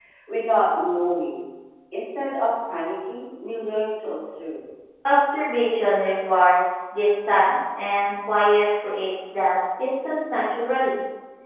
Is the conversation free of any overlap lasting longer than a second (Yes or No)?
Yes